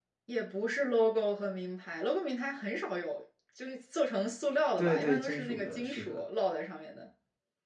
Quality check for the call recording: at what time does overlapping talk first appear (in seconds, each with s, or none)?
4.8 s